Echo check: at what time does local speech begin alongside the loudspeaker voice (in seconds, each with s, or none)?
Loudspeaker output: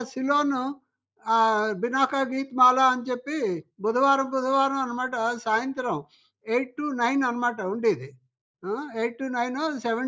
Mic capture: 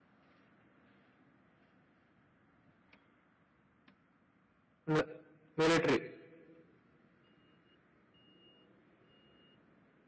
4.9 s